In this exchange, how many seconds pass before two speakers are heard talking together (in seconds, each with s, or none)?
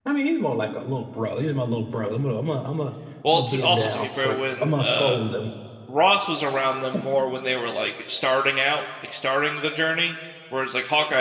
3.2 s